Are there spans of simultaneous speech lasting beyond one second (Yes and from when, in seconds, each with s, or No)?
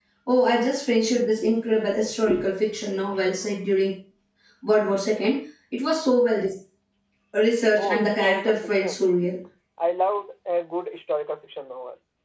Yes, from 7.8 s